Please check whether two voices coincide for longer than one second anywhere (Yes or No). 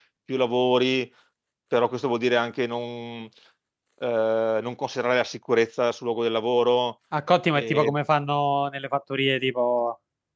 No